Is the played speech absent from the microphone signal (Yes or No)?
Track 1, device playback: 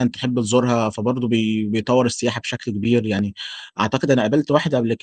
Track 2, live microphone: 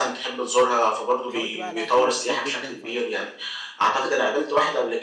No